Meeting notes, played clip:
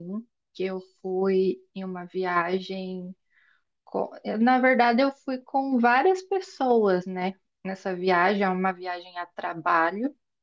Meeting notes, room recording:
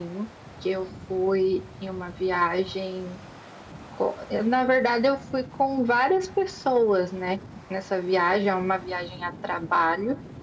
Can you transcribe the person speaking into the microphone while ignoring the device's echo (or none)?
none